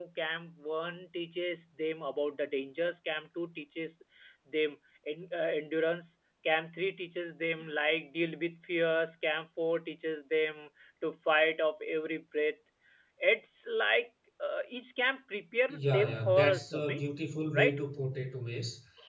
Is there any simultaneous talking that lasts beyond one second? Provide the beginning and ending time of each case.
15.7-17.0

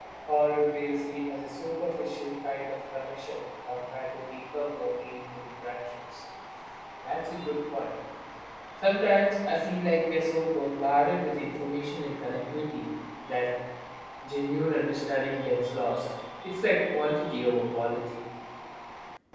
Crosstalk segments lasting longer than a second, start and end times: none

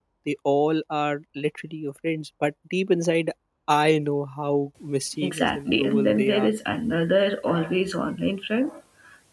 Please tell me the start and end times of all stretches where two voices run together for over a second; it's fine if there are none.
5.2-6.5

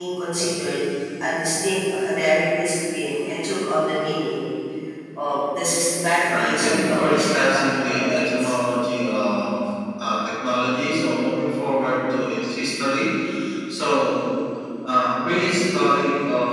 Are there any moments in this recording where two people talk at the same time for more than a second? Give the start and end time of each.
6.4-8.5

